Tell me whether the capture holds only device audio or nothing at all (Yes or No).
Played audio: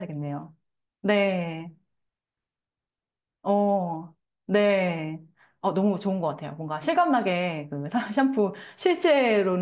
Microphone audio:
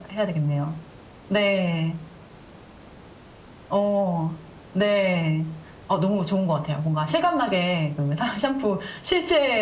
Yes